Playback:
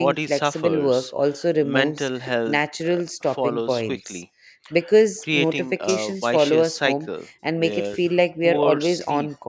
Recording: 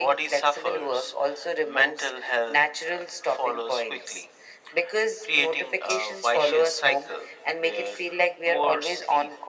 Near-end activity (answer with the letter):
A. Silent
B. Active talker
A